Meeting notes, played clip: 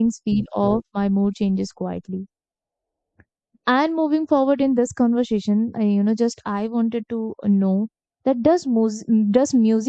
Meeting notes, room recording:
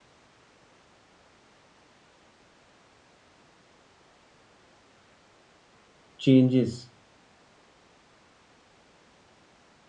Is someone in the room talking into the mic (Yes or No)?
Yes